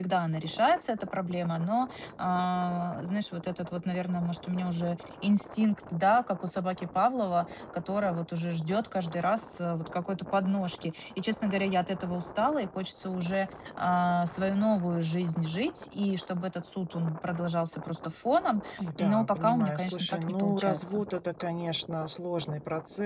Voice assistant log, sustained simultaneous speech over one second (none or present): present